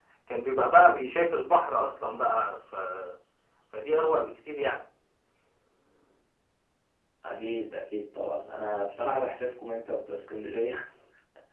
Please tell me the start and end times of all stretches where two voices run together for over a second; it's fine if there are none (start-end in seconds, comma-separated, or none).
none